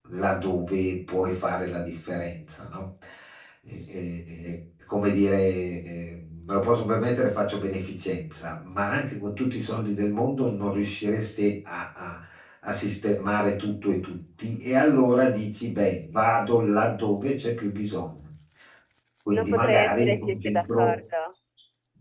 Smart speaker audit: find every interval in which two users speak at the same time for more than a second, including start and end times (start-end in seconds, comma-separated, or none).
19.3-20.9